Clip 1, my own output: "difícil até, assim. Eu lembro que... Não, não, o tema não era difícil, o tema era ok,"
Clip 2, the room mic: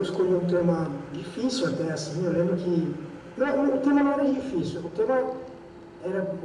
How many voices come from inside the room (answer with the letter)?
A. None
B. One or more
A